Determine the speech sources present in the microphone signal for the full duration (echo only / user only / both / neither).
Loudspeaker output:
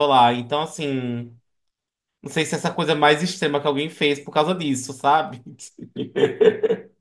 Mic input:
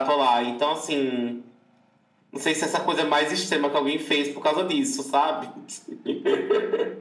echo only